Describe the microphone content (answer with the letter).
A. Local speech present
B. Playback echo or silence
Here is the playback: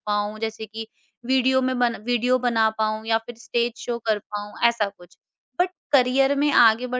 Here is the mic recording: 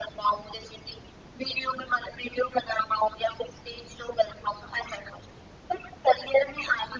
B